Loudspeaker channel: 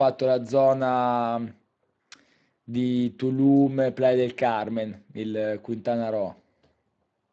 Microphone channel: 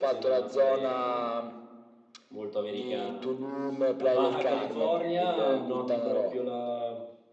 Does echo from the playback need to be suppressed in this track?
Yes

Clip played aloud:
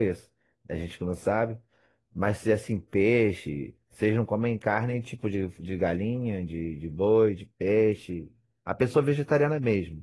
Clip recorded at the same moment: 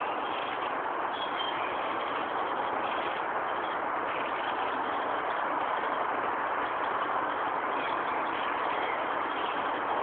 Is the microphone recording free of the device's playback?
Yes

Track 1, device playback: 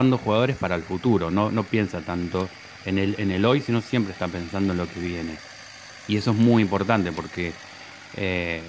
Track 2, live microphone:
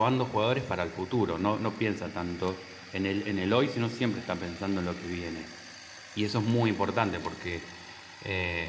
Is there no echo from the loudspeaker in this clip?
No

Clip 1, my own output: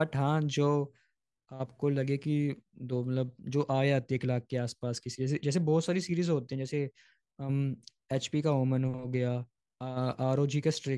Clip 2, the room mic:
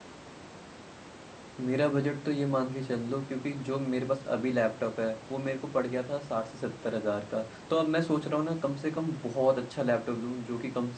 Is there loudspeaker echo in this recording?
No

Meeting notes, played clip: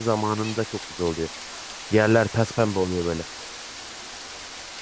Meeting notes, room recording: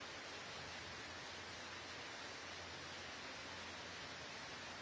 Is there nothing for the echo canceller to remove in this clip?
Yes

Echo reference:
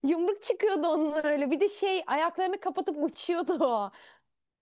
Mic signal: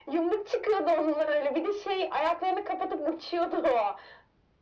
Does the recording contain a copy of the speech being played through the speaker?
Yes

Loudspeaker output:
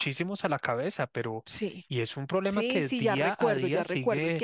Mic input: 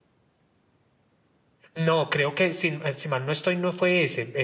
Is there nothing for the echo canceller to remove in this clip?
Yes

